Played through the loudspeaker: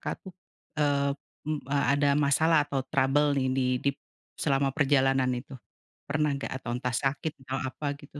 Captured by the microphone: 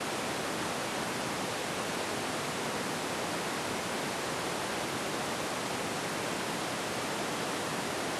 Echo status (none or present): none